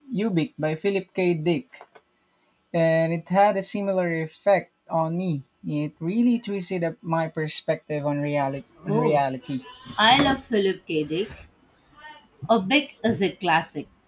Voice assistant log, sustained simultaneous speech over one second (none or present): none